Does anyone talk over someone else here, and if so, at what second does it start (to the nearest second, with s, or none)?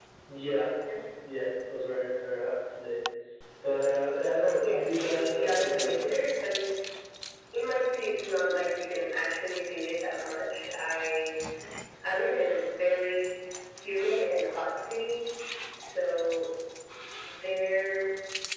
4 s